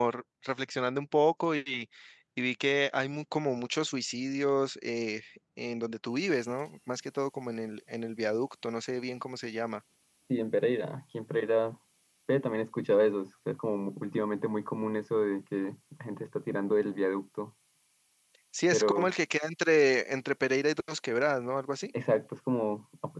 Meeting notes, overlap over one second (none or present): none